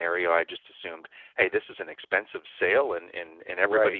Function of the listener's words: listening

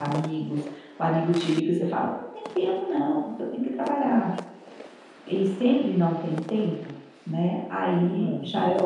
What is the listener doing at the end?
listening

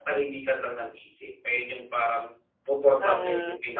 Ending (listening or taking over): taking over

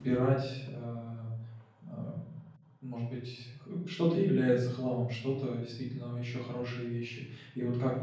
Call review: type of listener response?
listening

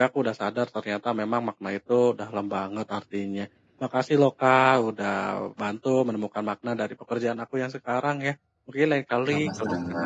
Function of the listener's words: listening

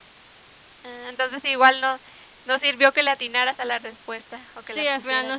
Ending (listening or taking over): taking over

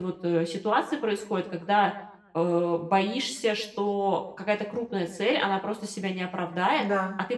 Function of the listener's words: listening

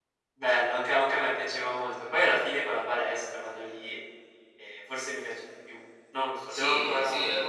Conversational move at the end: taking over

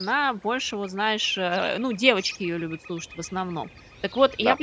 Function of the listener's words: listening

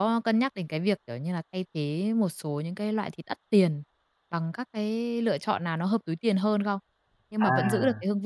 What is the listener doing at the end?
listening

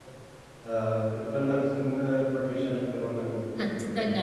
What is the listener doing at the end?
taking over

